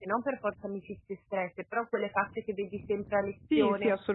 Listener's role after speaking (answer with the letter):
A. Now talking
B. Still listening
A